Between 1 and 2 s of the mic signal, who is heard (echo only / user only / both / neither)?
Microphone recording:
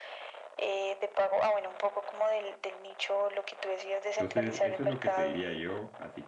echo only